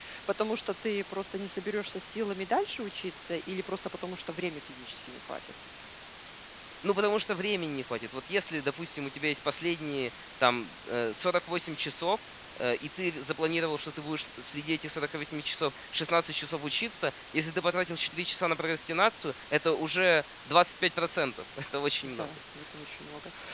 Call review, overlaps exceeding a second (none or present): none